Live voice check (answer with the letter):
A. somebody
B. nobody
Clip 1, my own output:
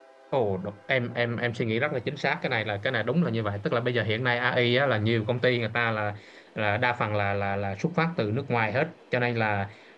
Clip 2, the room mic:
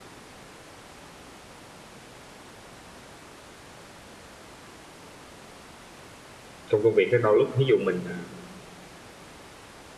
A